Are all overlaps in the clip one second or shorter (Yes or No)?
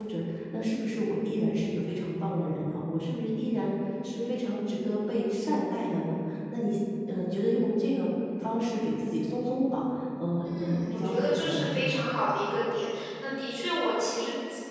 No